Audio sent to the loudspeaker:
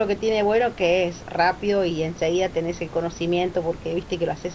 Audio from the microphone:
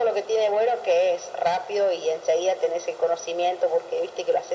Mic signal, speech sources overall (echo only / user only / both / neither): echo only